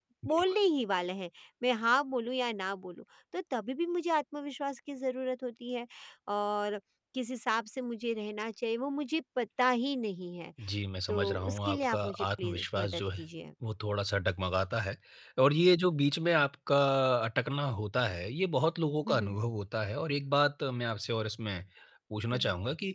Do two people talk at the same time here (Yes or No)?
Yes